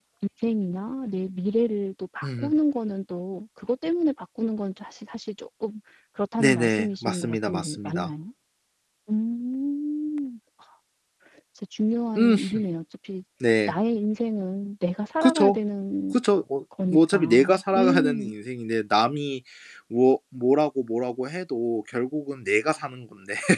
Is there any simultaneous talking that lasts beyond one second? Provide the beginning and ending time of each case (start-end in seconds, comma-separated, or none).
6.4-8.1, 16.9-18.3